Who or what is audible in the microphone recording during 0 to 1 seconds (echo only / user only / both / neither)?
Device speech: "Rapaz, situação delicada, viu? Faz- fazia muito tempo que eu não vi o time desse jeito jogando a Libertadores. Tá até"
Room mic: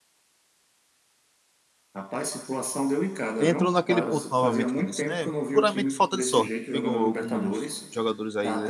neither